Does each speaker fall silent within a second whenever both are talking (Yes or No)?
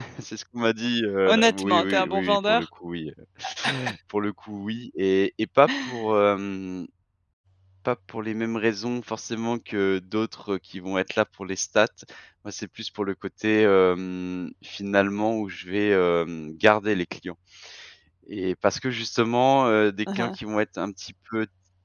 No